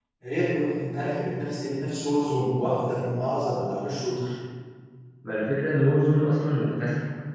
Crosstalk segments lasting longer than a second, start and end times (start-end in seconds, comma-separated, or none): none